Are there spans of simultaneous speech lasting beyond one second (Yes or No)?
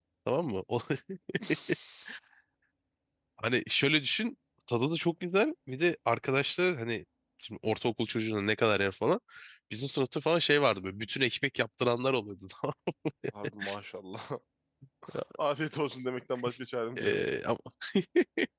No